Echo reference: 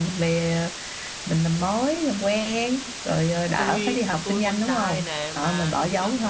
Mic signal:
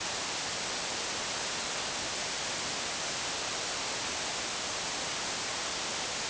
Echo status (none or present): none